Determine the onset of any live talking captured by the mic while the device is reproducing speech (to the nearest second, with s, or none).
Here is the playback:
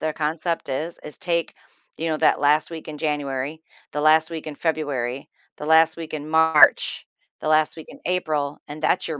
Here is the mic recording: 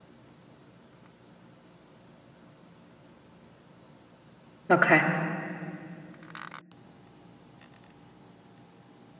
5 s